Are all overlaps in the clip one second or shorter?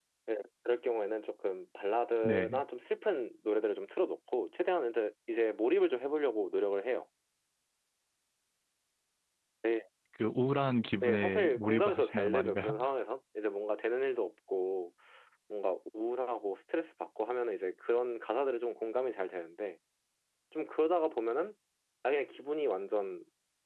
No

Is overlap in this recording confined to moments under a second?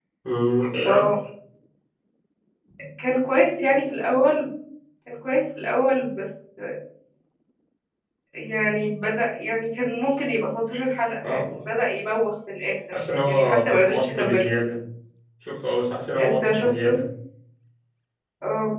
No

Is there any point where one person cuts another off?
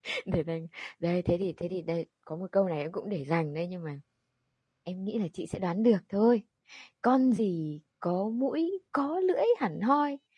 No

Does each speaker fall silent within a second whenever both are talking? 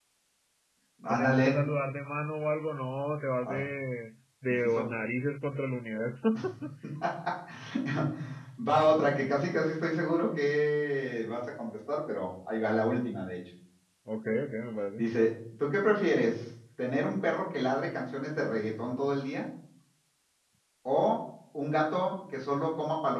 Yes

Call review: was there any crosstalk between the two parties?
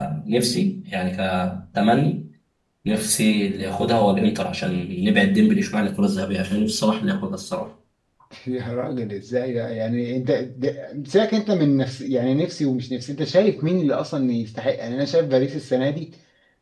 No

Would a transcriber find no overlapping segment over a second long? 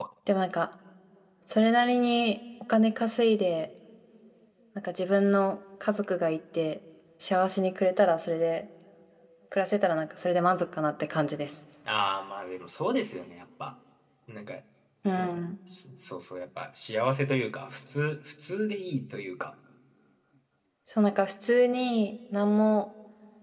Yes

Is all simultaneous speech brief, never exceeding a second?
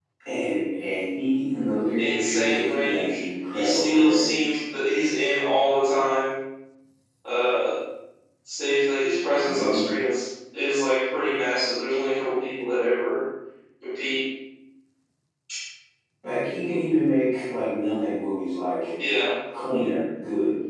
No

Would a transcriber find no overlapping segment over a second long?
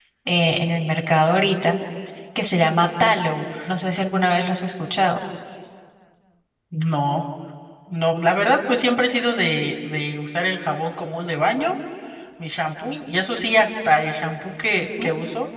Yes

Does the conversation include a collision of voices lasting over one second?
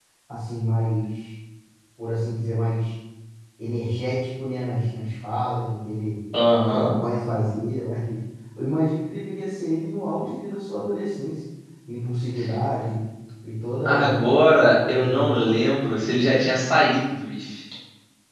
Yes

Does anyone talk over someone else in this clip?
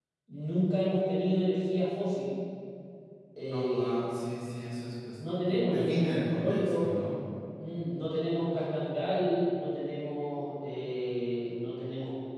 Yes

